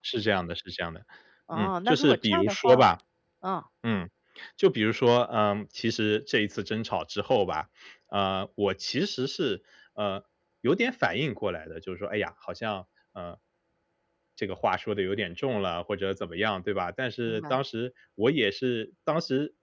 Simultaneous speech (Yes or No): Yes